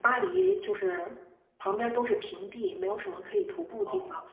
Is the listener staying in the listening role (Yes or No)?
Yes